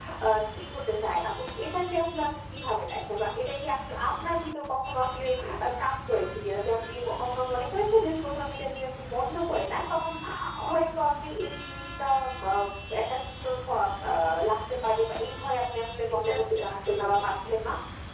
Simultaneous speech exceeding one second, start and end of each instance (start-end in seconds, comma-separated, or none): 16.1-17.5